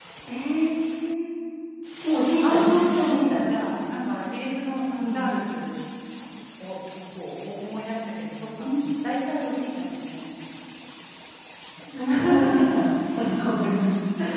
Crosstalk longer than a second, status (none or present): present